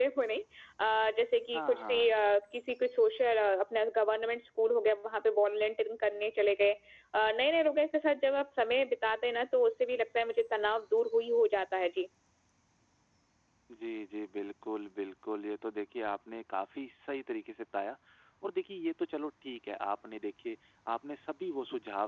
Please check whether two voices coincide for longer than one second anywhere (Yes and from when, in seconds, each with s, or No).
No